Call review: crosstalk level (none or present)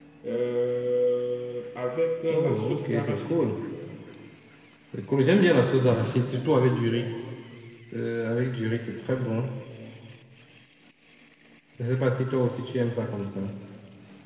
present